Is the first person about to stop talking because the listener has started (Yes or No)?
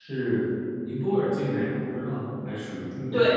Yes